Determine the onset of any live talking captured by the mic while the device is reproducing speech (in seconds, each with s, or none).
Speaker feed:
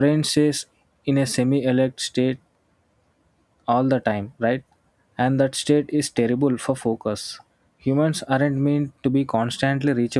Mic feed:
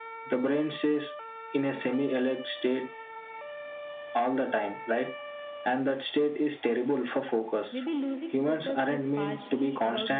7.7 s